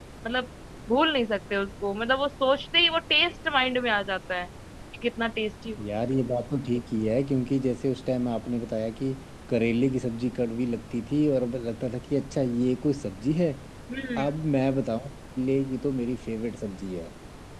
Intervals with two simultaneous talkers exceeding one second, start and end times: none

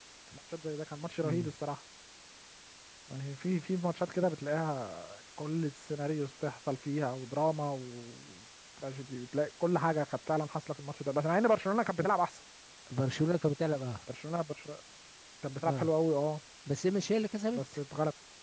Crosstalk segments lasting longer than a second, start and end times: none

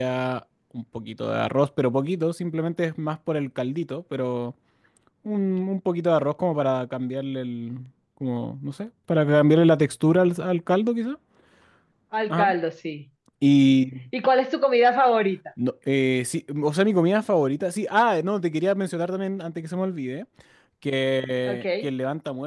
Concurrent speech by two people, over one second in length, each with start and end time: none

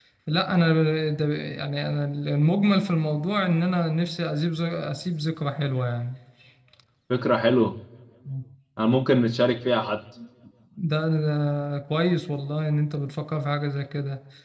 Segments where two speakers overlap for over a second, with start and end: none

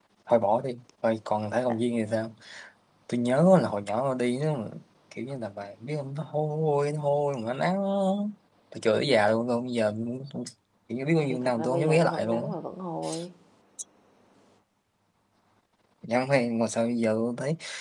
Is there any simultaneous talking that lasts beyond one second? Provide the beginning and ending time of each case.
11.2-12.5

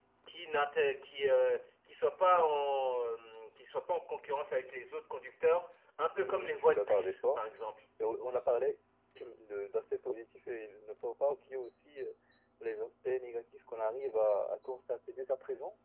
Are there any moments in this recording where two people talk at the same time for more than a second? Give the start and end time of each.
6.1-7.4

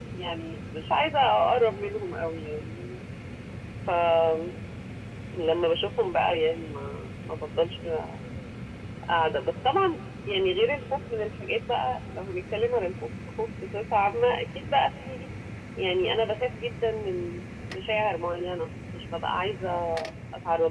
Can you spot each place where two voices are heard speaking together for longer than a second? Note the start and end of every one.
none

